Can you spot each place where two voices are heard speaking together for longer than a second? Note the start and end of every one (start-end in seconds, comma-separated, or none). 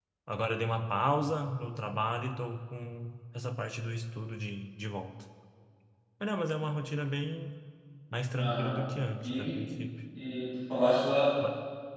none